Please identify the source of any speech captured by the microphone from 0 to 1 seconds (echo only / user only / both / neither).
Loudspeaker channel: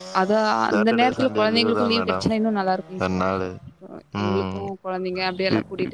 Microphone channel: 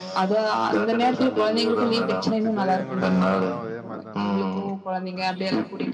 echo only